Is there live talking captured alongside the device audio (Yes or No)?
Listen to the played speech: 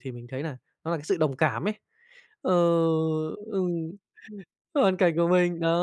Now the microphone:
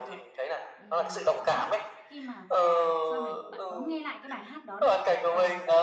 Yes